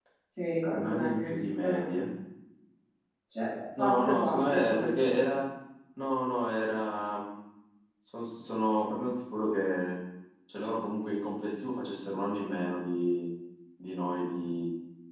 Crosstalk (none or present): present